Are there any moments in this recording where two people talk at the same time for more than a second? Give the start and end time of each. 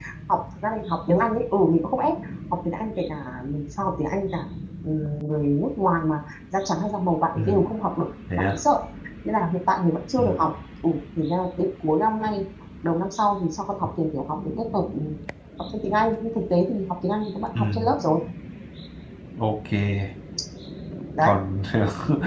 none

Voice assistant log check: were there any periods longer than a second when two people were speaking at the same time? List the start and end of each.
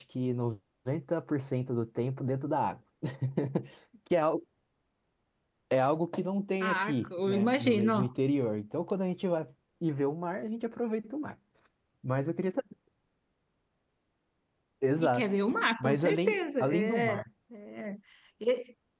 6.6-8.0, 15.8-17.2

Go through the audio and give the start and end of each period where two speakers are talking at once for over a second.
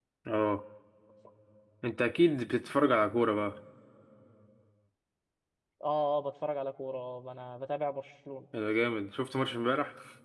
none

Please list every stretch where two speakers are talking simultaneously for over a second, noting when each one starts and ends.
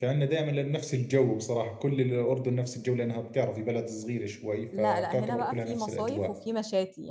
4.8-6.3

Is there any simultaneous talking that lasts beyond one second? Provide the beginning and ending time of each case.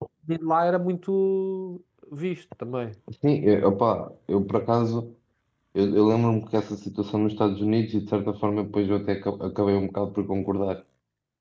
none

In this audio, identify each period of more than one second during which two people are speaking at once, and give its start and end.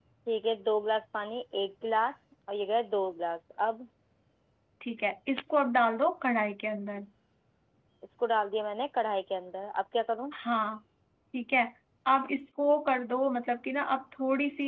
none

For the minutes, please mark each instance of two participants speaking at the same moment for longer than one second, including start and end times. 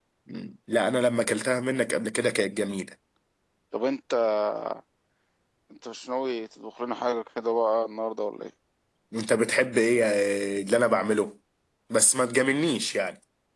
none

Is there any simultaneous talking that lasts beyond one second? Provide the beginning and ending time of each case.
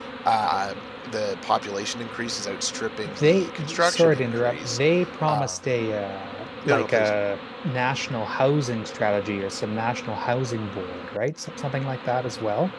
3.2-4.8

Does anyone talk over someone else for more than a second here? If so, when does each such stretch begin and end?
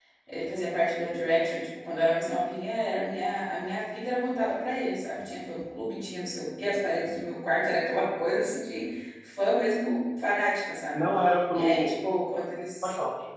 none

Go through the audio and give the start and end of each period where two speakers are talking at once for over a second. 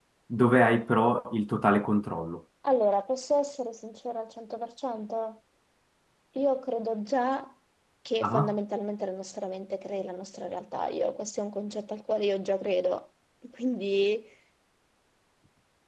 none

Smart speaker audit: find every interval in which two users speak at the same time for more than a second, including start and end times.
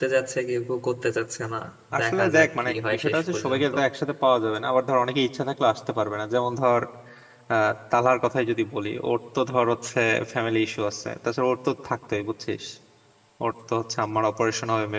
2.0-3.6

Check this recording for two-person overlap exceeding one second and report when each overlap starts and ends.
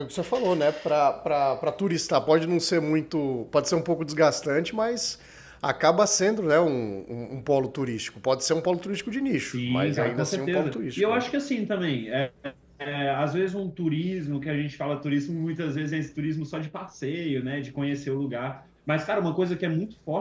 9.4-11.2

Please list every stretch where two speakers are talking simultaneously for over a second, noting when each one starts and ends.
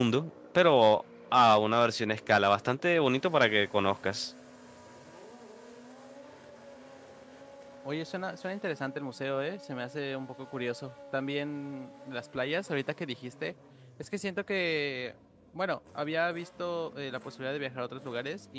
none

